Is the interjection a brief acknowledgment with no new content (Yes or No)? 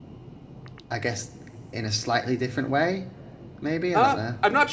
No